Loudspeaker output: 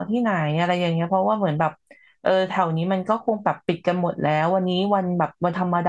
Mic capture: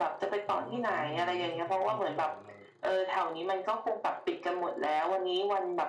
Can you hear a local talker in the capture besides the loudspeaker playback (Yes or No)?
Yes